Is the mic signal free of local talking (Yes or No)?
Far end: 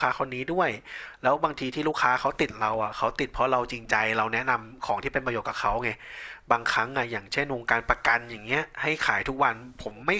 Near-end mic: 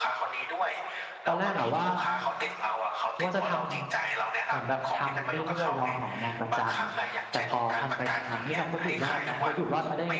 No